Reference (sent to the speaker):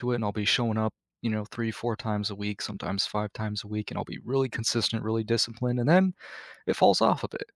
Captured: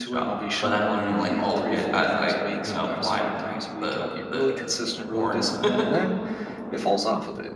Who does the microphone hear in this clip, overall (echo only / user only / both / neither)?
both